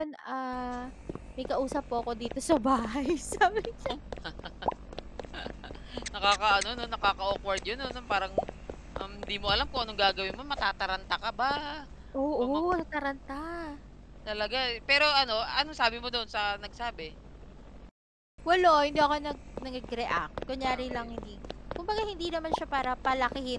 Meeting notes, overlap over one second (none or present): none